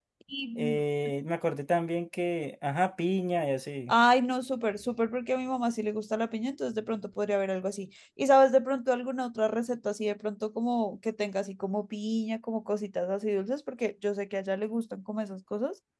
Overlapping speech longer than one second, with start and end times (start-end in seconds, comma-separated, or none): none